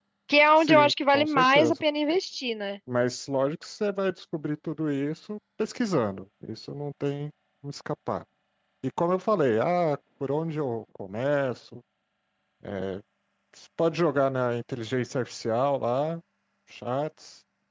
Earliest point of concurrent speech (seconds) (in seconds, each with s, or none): 0.6 s